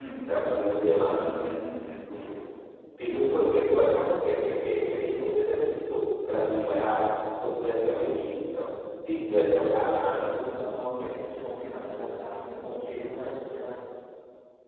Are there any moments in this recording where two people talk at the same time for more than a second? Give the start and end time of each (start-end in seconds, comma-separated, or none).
none